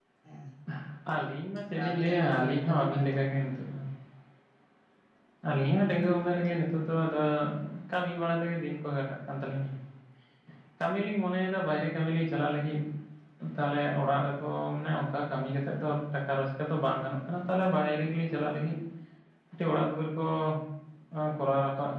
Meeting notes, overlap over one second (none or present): present